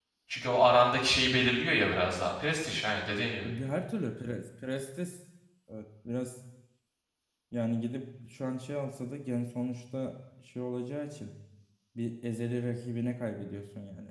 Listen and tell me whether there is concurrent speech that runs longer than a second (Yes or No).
No